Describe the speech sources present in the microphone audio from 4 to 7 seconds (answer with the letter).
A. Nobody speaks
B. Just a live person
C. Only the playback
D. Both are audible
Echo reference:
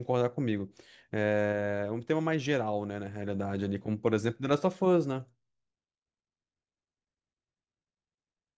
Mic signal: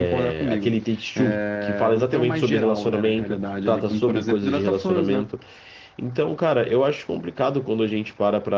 D